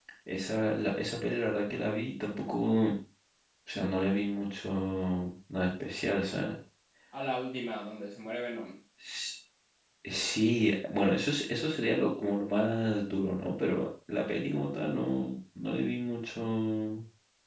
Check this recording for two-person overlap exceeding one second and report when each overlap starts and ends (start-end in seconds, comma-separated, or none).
none